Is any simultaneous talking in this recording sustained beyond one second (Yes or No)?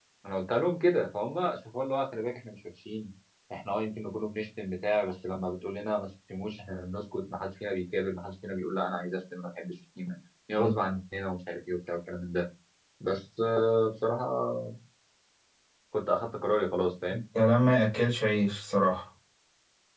No